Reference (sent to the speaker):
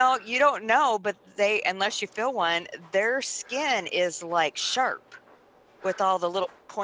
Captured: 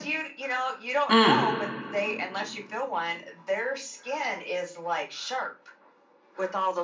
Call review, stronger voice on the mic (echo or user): user